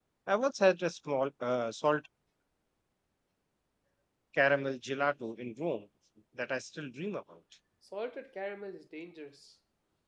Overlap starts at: none

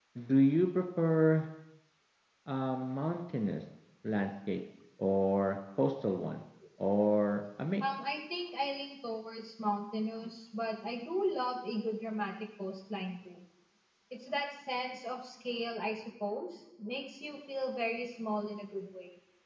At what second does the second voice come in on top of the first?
none

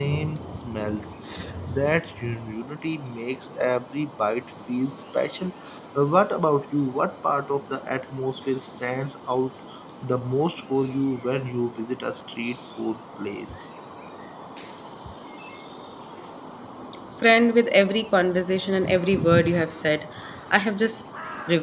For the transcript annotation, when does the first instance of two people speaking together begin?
none

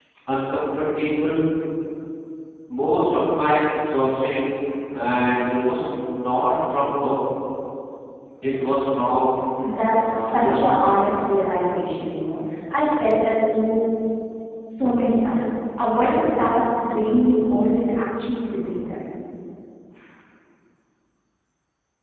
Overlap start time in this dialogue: 9.9 s

